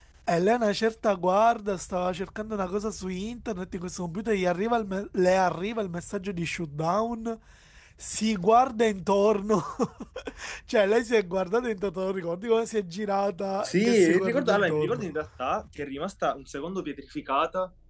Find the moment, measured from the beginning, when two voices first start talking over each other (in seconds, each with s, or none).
13.6 s